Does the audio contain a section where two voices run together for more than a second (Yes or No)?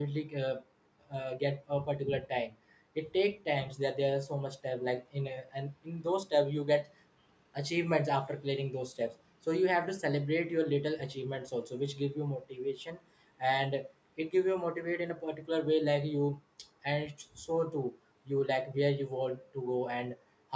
No